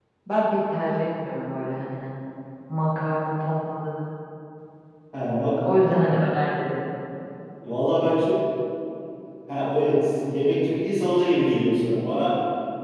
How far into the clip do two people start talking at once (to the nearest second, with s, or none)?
none